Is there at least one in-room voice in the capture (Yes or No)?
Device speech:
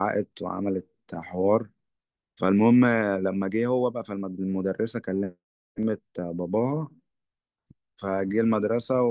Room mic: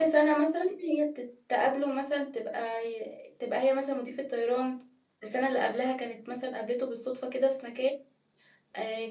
Yes